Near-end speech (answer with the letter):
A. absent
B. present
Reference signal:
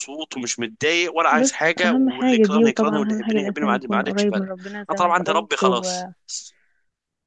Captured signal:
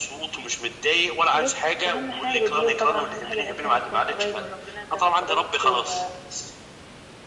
A